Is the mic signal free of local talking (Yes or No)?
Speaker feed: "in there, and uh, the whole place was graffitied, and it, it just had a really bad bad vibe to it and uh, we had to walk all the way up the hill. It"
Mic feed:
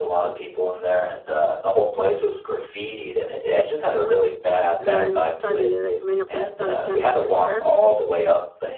No